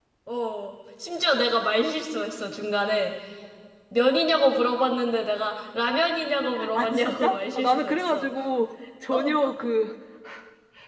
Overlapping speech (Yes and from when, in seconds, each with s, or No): Yes, from 6.8 s